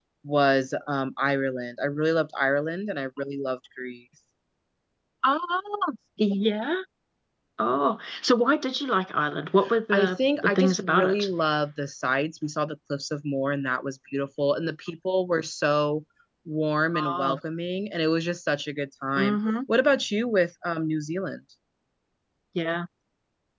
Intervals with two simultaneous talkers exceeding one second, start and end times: 9.9-11.3

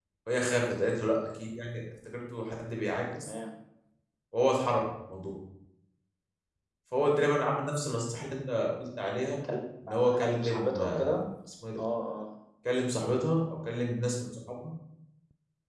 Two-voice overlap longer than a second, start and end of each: 9.8-11.1

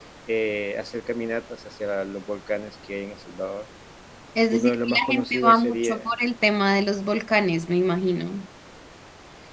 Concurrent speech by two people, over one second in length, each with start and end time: 4.5-6.1

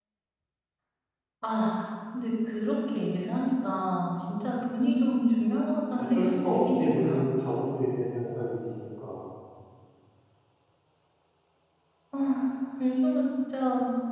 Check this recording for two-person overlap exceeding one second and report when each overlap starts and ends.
6.0-7.2

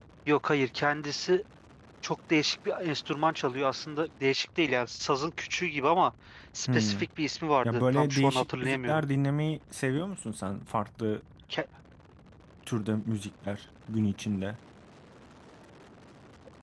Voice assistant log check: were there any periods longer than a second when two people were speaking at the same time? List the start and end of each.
7.6-9.1

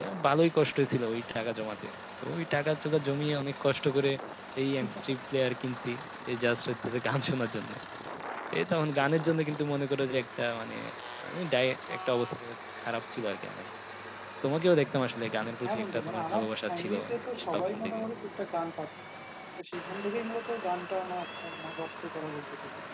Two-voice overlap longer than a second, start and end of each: 15.7-16.9

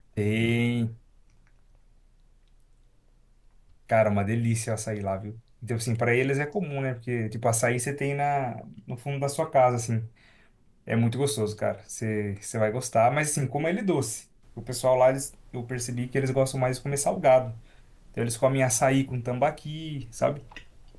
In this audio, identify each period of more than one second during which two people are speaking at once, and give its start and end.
none

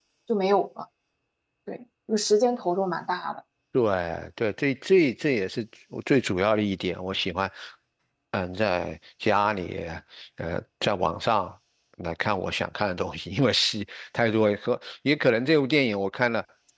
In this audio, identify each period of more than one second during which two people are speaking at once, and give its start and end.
none

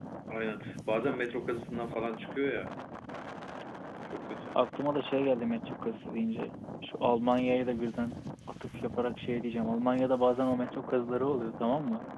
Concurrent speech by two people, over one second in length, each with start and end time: none

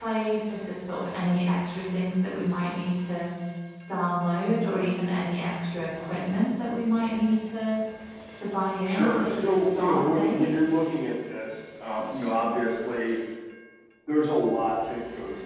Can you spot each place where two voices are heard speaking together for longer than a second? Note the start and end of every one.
8.8-10.5

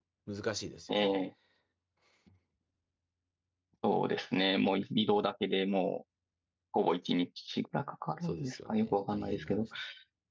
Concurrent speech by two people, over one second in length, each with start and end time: 8.2-9.7

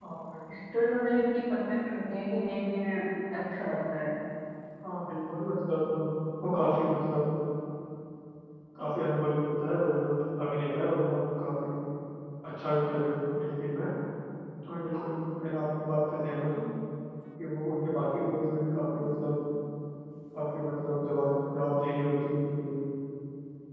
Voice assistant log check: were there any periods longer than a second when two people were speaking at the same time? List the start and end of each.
none

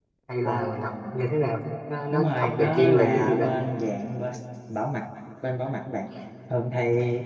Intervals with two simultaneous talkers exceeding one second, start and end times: 2.1-3.5

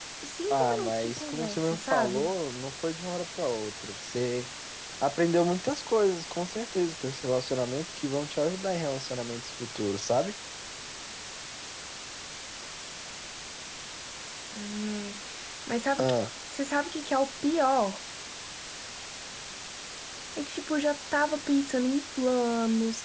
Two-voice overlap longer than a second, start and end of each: 0.5-2.3

